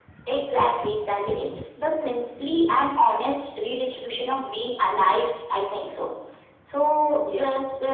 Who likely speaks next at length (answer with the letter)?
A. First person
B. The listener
A